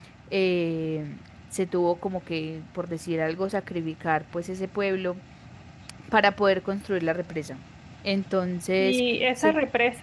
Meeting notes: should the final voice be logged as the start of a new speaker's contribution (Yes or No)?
Yes